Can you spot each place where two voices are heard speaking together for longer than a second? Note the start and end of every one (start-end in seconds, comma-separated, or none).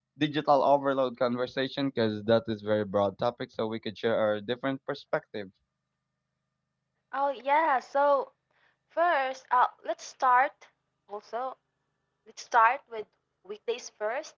none